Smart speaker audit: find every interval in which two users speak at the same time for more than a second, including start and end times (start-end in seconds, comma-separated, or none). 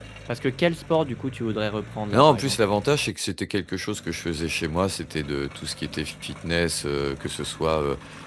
none